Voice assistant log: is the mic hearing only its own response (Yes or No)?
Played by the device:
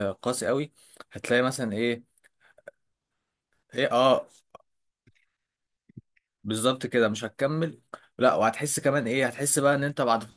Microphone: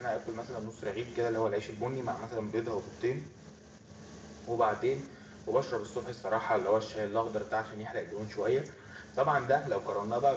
No